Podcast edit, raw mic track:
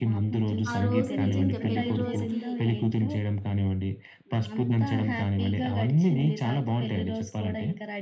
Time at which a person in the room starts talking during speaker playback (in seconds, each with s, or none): 0.7 s